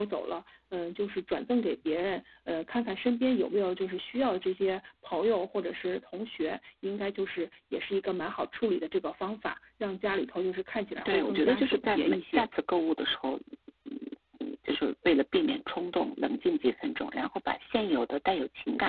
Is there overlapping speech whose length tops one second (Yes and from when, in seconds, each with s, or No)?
Yes, from 10.9 s